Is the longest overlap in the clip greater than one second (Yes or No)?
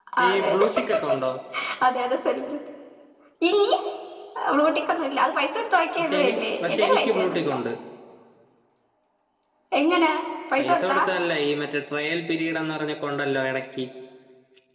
Yes